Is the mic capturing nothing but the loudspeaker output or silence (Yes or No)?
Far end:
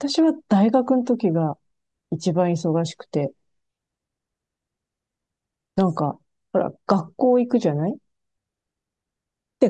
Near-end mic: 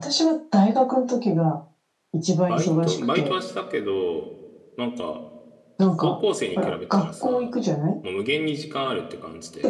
No